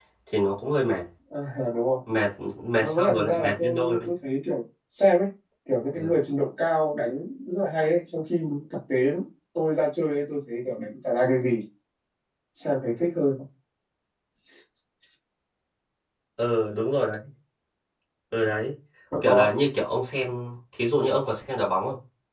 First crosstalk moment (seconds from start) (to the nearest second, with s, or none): 3 s